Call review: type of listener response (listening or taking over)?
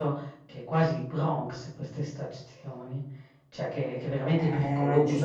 taking over